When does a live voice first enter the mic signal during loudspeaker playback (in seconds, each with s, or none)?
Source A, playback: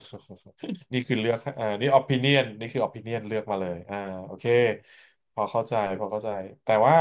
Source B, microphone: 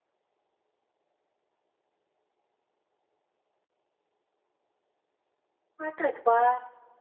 5.8 s